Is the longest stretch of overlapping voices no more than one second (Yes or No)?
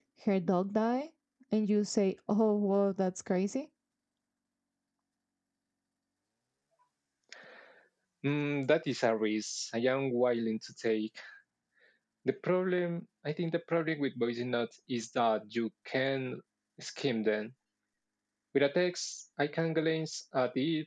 Yes